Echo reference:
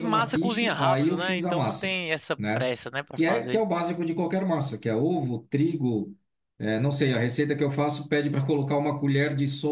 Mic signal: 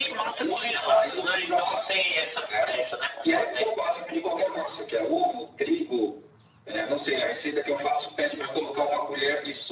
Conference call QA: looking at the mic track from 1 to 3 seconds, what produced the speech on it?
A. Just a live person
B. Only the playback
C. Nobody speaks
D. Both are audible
B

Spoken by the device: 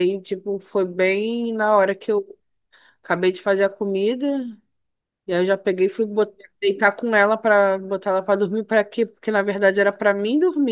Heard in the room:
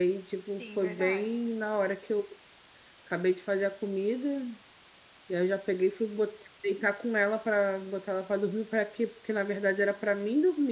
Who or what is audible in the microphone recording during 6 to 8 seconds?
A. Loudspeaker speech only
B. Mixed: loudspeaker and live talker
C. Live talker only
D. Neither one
A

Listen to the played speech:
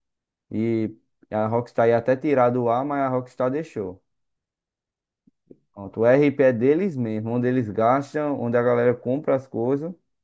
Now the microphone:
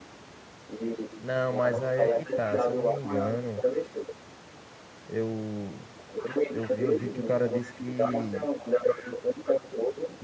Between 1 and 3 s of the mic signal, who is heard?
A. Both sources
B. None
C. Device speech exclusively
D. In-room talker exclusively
A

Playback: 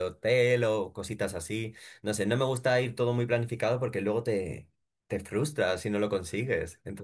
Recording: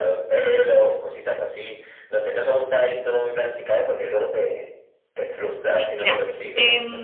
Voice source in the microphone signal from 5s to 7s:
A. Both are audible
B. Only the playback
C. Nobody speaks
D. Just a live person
A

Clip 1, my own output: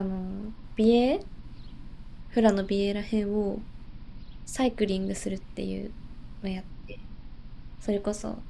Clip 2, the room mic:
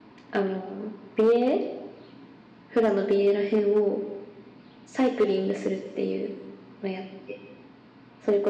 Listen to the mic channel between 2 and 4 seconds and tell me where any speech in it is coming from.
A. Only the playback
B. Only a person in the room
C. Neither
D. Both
A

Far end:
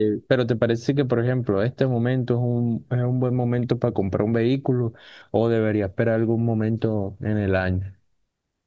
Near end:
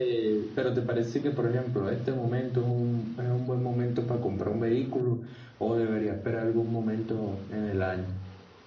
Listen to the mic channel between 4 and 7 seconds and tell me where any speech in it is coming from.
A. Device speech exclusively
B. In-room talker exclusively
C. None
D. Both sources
A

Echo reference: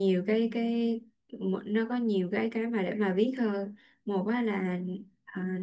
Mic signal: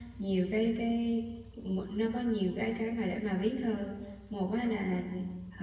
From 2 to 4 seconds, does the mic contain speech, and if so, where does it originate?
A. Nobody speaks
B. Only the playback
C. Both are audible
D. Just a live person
B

